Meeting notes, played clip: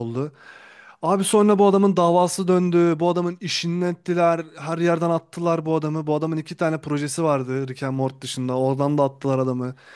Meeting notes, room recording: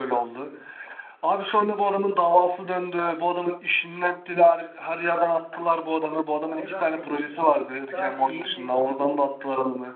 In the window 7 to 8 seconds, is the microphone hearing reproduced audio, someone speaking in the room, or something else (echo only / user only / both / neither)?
both